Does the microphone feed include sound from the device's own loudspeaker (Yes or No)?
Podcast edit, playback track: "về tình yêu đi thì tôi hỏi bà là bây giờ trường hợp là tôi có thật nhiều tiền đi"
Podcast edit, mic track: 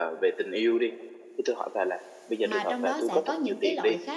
Yes